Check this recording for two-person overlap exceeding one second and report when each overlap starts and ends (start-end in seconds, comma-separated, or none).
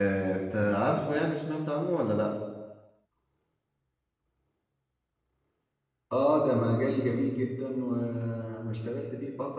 none